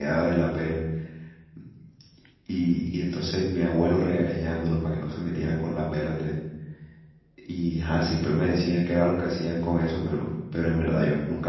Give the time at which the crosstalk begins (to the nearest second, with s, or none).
none